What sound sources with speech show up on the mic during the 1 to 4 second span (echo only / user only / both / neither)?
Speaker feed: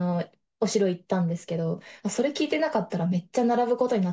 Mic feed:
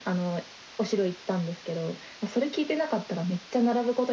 echo only